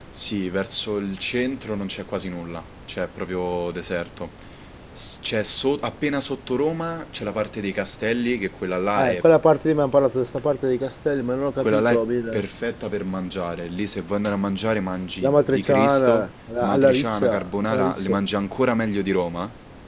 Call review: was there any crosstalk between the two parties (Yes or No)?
Yes